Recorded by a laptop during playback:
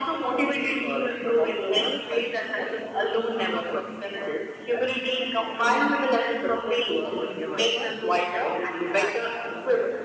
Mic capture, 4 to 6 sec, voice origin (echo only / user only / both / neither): echo only